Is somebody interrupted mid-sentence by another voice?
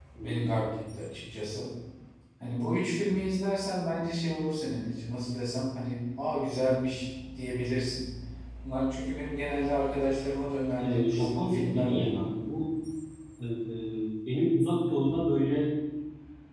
Yes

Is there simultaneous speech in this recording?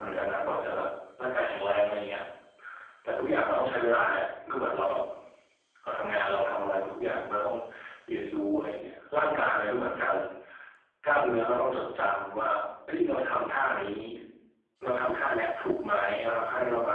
No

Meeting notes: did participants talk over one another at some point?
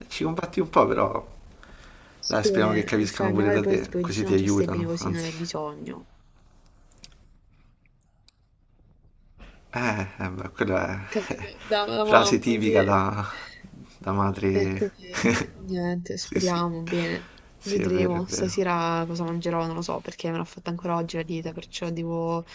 Yes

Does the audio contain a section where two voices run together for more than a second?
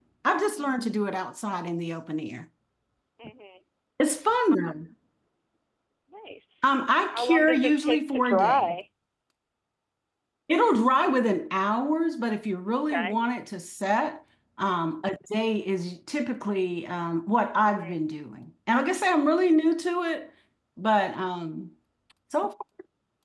Yes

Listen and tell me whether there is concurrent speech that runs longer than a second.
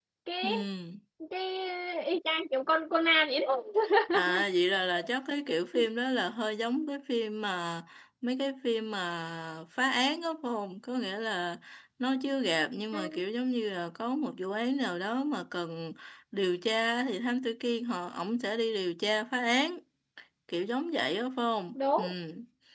No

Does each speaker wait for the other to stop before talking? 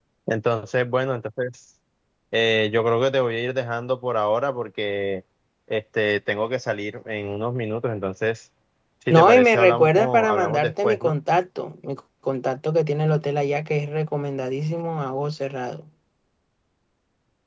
No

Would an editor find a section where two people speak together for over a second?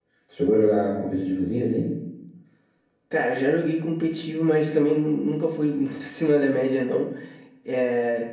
No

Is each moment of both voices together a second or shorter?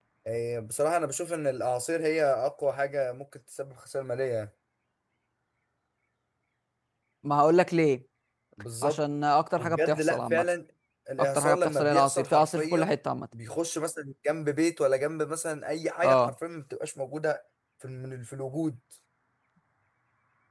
No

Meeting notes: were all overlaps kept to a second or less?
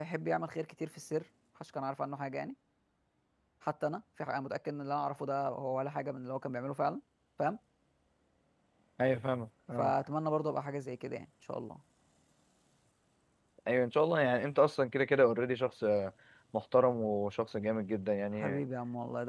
Yes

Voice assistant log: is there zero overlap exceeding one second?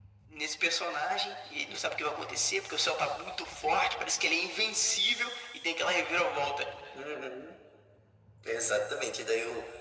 Yes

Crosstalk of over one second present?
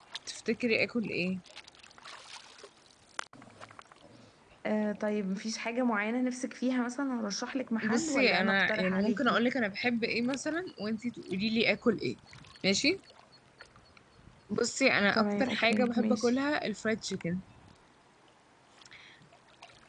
Yes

